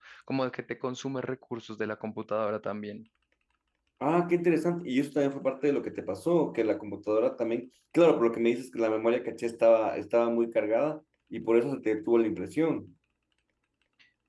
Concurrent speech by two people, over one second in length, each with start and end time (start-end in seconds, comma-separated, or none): none